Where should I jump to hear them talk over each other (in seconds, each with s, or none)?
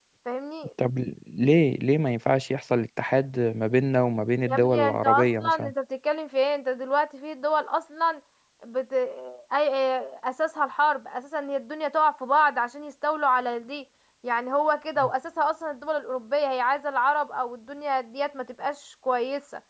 4.5 s